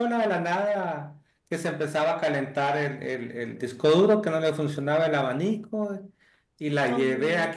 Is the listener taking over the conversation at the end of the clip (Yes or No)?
No